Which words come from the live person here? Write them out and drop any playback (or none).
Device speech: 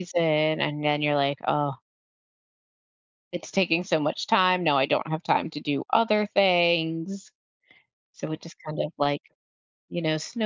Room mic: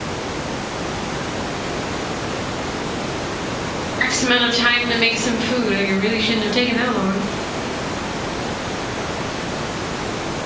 X amount of time to make some food? Like, it really shouldn't have taken that long."